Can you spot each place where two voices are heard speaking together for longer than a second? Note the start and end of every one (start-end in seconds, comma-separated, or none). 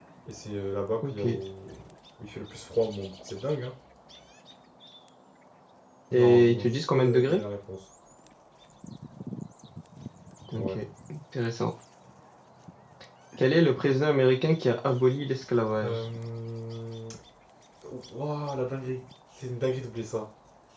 6.1-7.4